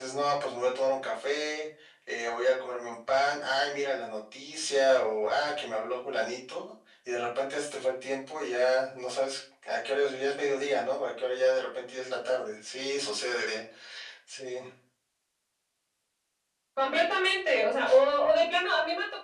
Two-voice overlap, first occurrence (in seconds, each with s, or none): none